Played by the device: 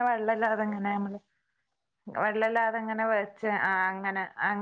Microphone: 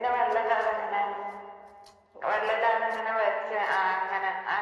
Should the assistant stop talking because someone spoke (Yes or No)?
No